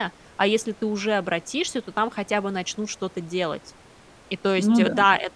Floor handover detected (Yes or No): No